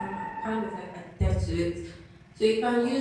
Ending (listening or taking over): listening